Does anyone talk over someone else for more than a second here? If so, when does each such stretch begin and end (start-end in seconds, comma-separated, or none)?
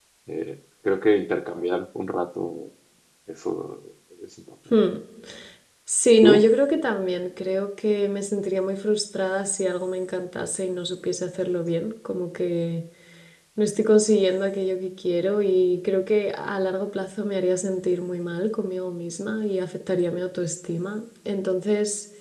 none